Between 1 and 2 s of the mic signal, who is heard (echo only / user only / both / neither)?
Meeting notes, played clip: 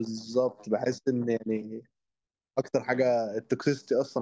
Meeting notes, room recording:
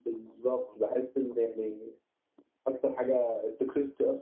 echo only